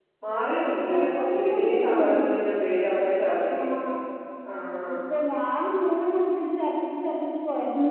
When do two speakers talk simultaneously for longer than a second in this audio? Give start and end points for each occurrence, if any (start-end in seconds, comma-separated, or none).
0.9-2.1